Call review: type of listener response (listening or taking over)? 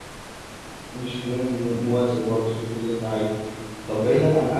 listening